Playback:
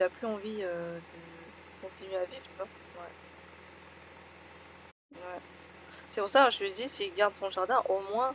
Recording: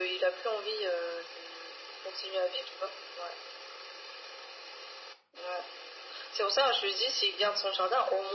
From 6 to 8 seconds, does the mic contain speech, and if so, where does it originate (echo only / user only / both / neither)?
echo only